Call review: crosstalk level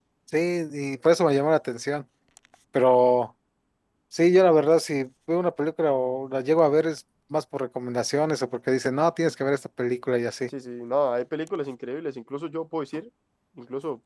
none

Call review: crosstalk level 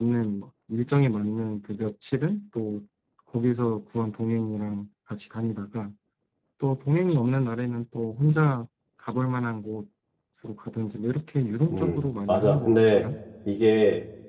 present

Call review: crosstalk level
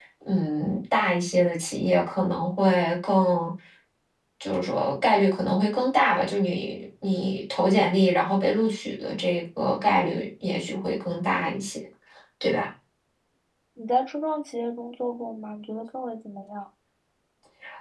none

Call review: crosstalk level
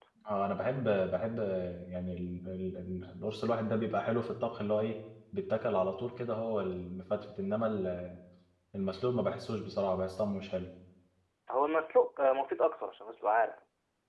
none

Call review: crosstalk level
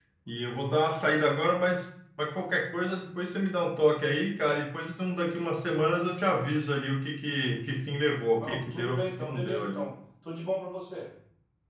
present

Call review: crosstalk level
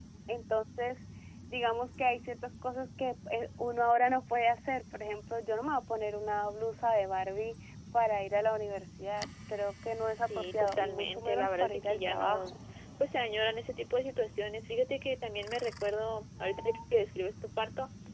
present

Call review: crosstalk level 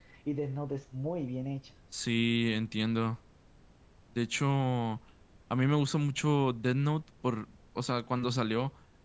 none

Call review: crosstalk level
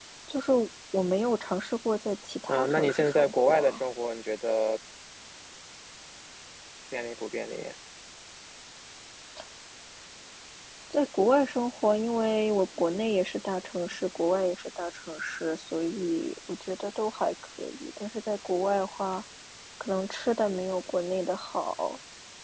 present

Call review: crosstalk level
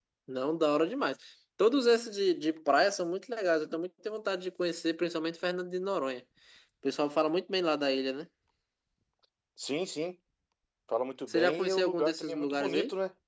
present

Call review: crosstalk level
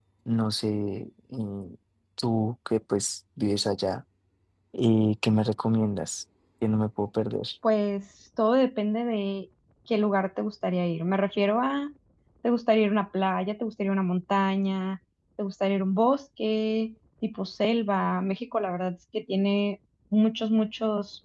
none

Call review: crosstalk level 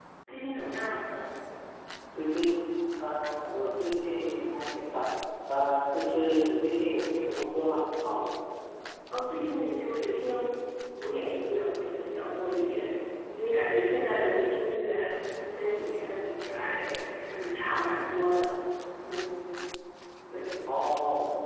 none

